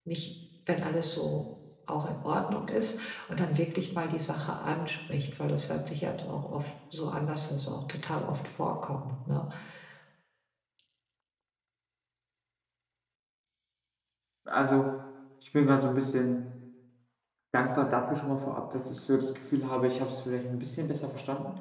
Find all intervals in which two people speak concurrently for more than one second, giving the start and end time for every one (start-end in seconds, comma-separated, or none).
none